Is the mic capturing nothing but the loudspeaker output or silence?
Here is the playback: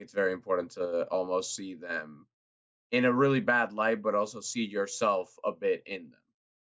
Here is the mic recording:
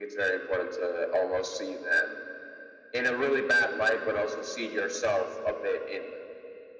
Yes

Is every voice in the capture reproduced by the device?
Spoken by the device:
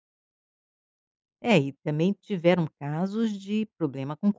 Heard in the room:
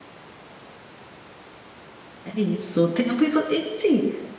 No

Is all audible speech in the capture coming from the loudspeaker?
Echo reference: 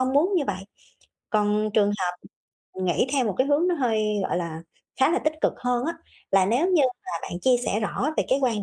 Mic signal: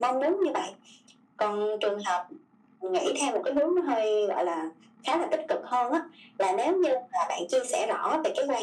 Yes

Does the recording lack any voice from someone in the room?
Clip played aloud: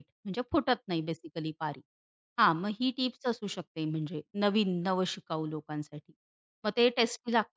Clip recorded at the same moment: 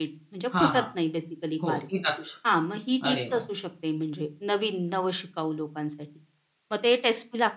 No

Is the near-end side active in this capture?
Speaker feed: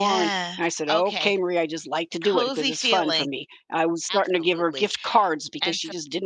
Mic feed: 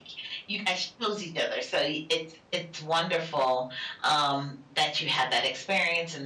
Yes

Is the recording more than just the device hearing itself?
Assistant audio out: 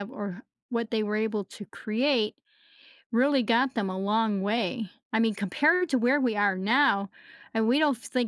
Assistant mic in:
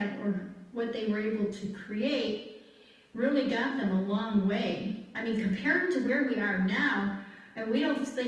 No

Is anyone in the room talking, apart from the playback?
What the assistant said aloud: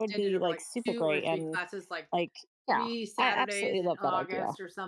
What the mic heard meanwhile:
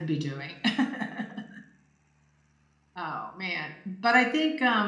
Yes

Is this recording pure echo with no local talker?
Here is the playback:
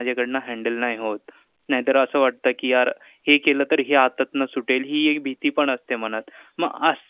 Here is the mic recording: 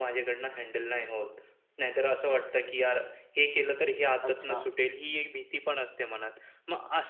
No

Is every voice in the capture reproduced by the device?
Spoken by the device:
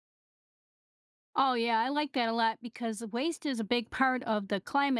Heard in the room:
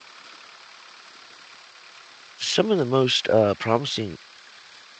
No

